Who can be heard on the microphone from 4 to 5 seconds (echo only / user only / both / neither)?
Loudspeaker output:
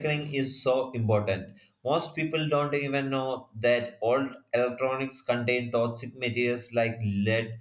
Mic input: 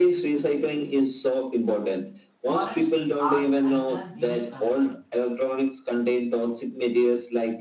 both